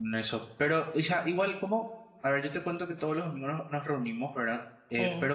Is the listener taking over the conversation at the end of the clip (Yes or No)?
No